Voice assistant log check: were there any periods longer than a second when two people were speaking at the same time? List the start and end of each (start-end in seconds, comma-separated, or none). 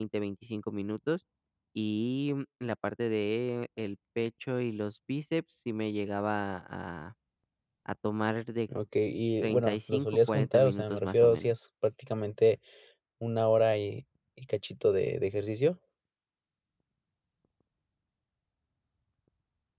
9.4-11.6